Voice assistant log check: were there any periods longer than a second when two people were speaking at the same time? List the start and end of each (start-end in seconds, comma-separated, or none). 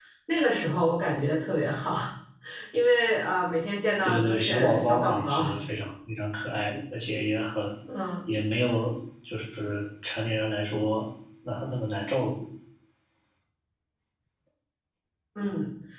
4.0-5.4